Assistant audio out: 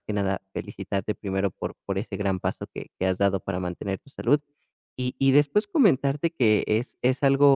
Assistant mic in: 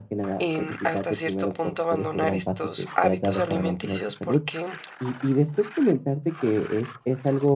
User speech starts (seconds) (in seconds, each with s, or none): 0.4 s